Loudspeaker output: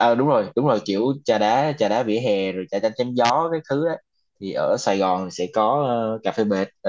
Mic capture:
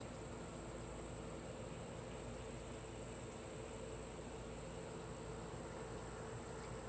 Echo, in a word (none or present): none